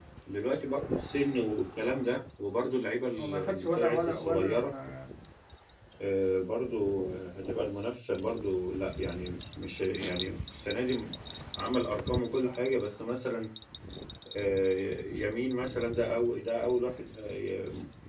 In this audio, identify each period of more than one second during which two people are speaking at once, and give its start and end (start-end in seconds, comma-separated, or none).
3.2-4.7